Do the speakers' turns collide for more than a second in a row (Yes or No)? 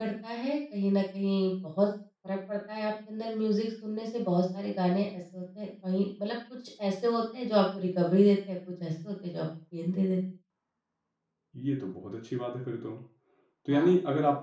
No